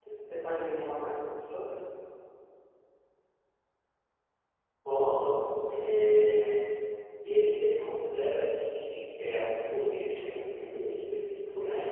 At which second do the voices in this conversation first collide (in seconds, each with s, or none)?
none